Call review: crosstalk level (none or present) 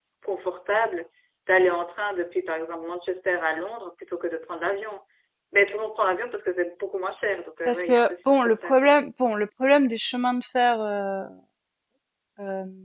present